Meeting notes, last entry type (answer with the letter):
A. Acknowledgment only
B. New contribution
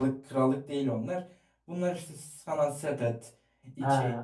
A